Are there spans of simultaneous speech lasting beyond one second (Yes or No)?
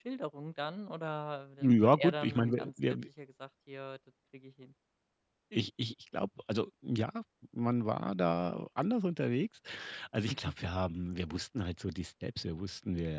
Yes